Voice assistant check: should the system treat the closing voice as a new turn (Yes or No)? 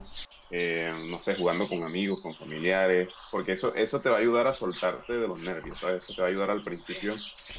No